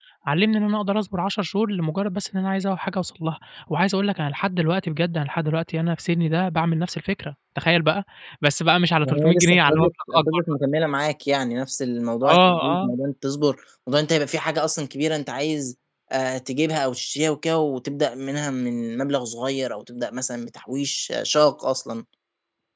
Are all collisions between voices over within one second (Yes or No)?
No